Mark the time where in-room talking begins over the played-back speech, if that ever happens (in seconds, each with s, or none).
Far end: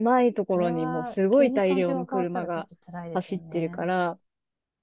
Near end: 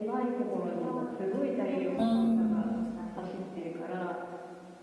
2.0 s